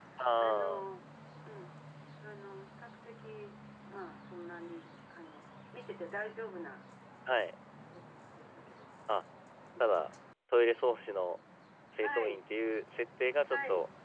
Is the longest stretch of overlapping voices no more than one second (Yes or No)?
Yes